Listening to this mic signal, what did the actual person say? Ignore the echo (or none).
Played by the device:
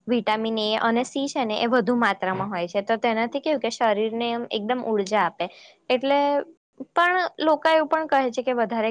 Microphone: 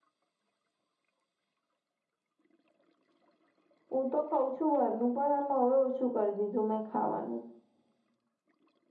હું તો ખઉં છું બારનું પણ આમ હવે ઓછું કરી દીધું મેં ખાવાનું